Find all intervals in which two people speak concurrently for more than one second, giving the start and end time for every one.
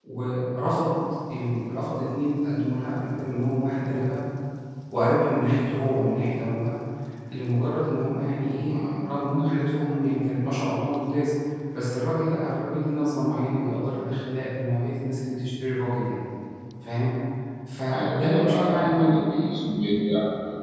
17.9-19.2

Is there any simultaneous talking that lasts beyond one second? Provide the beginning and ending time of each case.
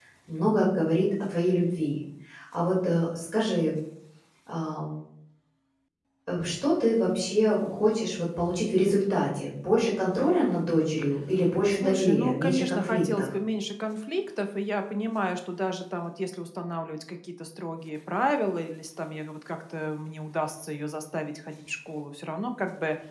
11.7-13.3

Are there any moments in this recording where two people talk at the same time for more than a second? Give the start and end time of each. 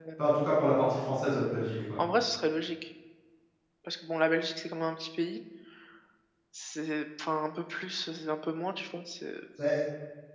none

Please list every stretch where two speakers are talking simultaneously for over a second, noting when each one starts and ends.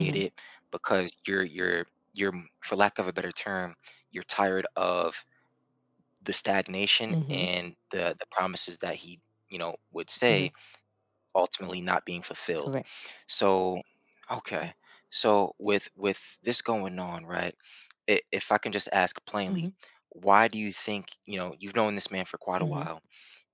none

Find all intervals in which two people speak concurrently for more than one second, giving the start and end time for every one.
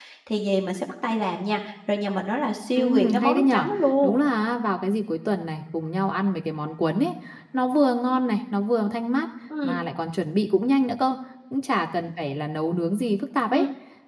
2.7-4.2

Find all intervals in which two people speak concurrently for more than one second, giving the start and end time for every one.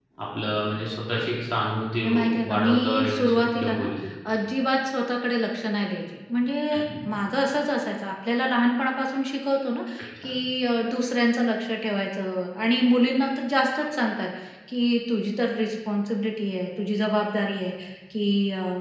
1.9-3.9

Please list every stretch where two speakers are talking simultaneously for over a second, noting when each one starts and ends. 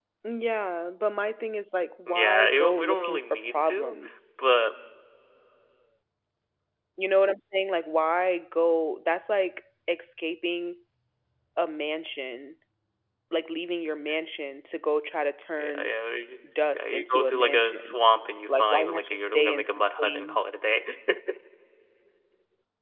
2.1-3.9, 16.7-18.0, 18.6-20.4

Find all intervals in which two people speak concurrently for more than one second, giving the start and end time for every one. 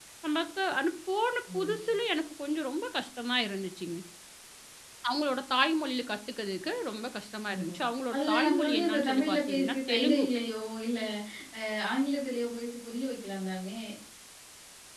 8.1-10.3

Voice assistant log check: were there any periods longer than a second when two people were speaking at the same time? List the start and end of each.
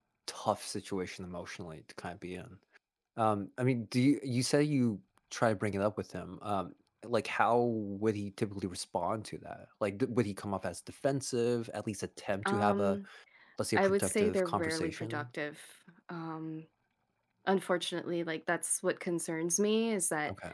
13.8-15.2

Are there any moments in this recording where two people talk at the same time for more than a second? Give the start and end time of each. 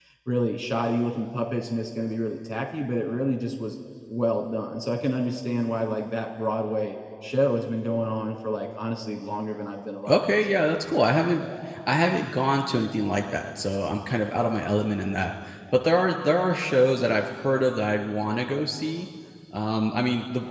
none

